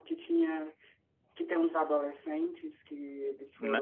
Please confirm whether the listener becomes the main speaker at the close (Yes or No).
Yes